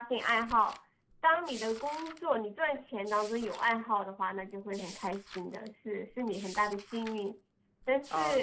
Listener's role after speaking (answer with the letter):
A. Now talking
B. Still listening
A